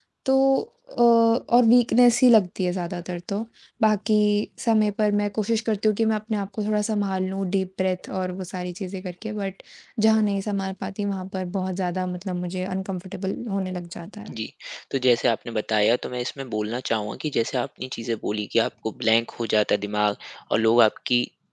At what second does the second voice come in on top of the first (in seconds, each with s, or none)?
none